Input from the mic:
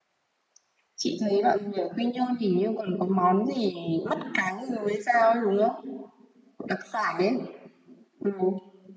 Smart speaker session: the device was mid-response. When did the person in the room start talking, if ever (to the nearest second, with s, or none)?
none